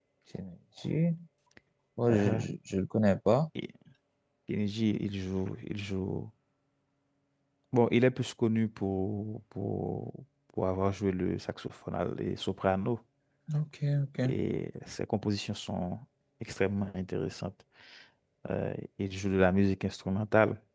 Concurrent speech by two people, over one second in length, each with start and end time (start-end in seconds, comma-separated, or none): none